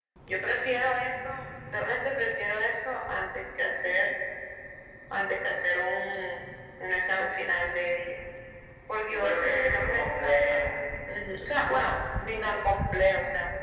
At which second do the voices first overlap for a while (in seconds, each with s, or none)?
9.0 s